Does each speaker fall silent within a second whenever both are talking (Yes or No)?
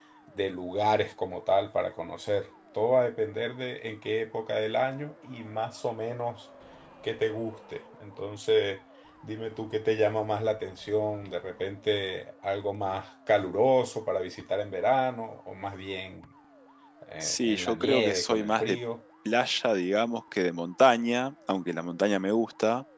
No